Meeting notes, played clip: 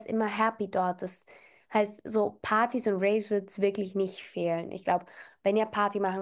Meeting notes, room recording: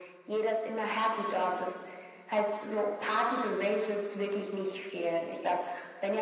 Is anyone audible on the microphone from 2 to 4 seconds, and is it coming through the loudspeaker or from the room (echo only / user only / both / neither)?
echo only